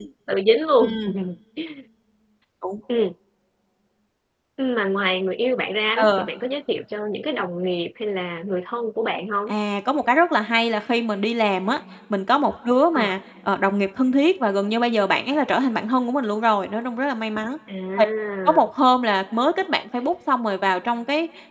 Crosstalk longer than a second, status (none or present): none